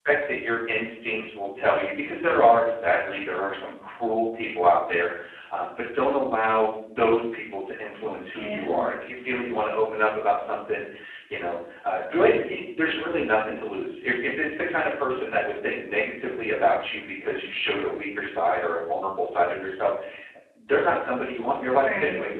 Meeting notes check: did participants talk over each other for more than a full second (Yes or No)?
No